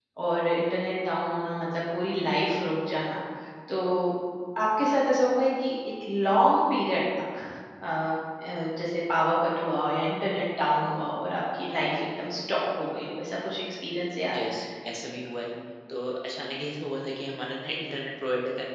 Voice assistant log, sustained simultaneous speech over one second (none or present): none